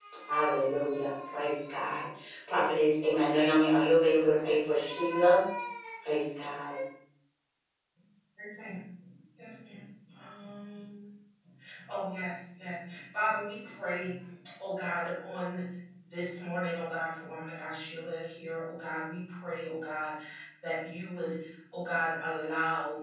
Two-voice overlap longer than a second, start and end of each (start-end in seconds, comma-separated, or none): none